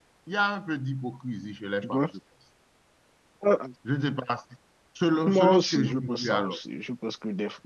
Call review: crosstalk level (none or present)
present